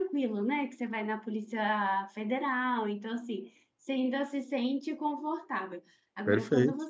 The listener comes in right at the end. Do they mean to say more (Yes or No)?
No